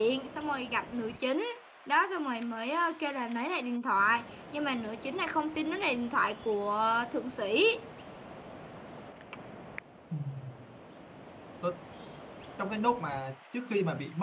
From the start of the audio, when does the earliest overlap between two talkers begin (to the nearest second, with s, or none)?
none